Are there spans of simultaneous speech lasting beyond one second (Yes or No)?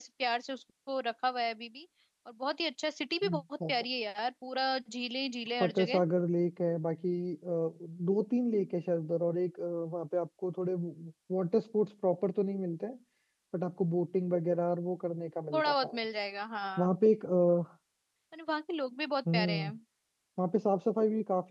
No